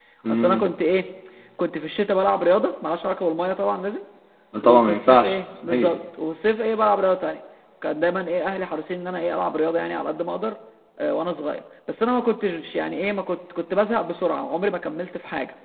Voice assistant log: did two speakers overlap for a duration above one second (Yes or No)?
Yes